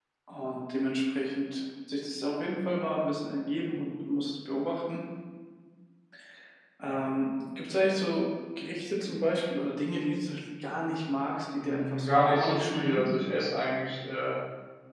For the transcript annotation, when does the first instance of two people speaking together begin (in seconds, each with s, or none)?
11.6 s